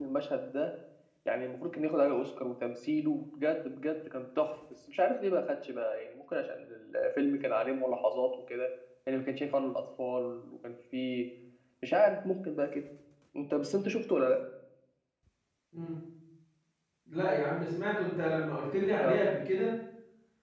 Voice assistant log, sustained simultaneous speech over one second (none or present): none